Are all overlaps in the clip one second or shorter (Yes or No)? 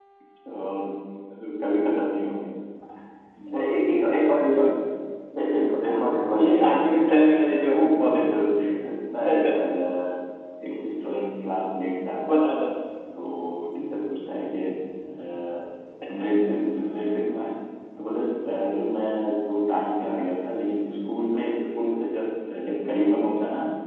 No